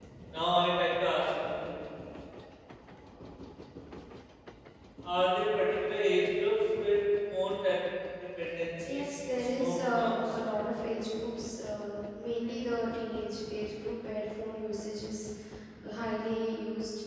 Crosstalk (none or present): present